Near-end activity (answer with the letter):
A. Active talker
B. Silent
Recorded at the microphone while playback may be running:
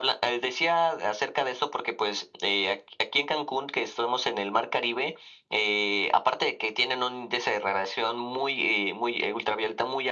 B